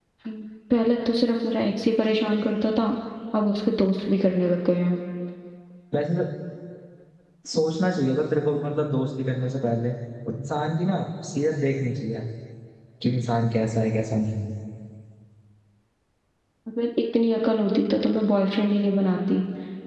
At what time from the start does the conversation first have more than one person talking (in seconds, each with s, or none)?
none